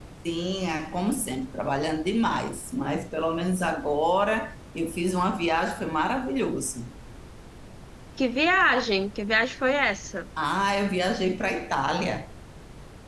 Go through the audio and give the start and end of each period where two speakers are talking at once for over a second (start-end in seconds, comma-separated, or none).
none